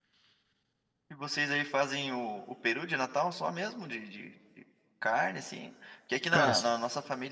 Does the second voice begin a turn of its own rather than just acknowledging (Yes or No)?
No